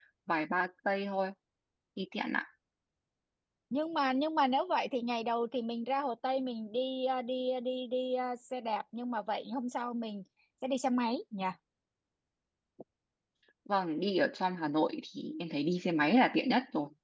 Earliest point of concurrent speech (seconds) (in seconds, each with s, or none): none